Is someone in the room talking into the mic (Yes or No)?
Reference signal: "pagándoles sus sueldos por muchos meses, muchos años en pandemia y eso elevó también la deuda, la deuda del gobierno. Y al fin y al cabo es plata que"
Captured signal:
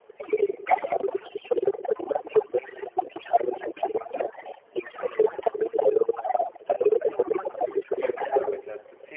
Yes